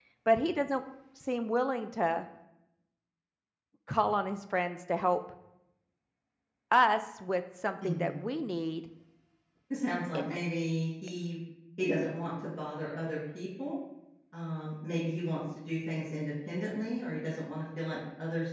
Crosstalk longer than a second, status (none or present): none